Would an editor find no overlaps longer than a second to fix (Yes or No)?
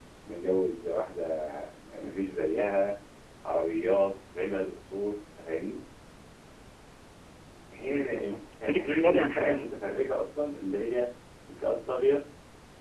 No